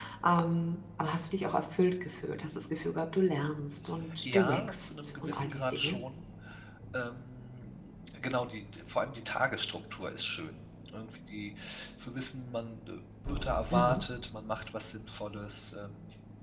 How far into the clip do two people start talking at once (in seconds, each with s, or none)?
4.2 s